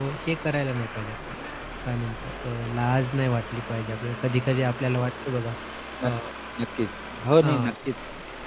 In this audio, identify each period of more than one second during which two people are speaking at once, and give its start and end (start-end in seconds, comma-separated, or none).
none